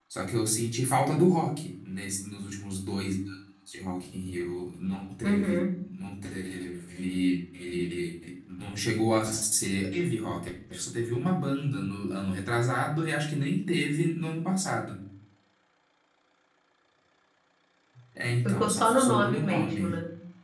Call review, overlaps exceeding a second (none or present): present